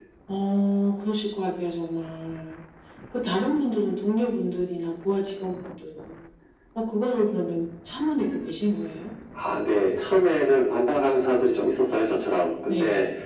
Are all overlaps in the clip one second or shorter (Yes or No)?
Yes